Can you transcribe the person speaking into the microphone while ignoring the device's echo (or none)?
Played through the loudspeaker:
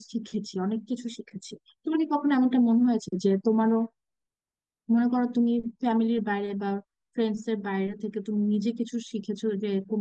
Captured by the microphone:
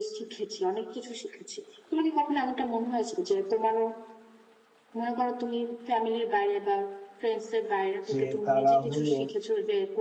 যে তারা হলো